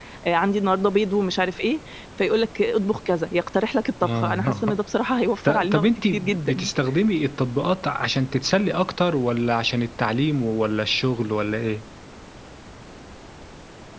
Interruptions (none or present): present